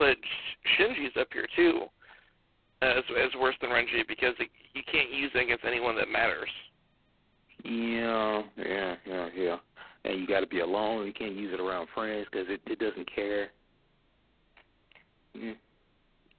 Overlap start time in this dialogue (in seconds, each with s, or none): none